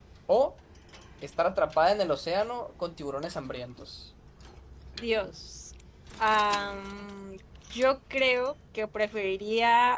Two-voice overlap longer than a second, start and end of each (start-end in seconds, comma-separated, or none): none